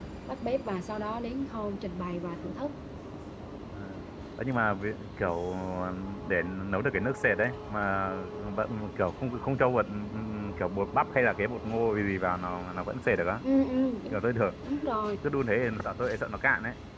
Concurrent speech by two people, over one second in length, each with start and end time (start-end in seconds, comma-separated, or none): none